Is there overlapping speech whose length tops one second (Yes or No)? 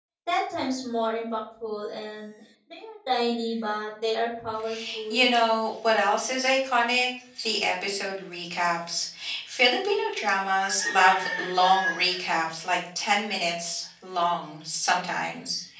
No